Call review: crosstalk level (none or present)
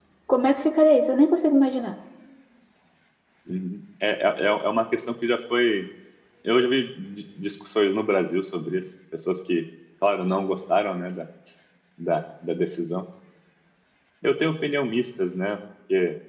none